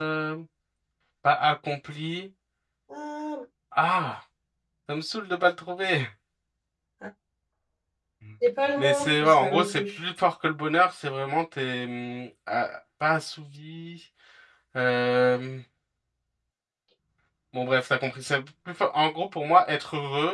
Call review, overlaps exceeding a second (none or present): present